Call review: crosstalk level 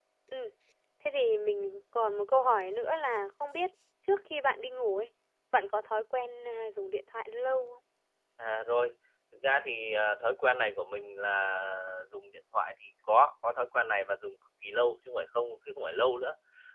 none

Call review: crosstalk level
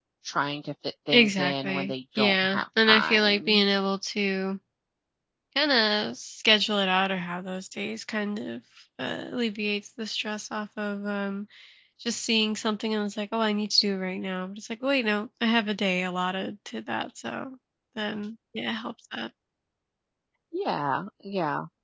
present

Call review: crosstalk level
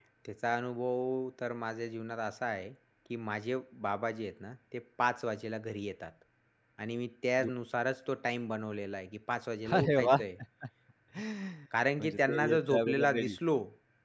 present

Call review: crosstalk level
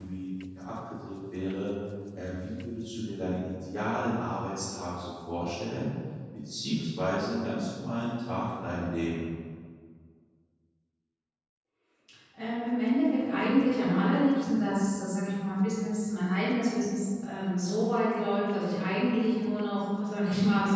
none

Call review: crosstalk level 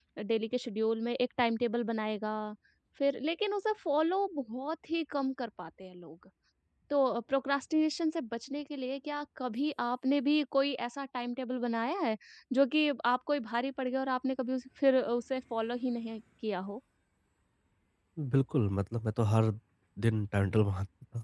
none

